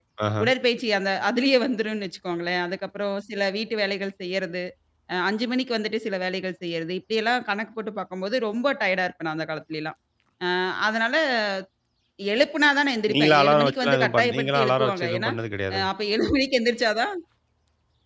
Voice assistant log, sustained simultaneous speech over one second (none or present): present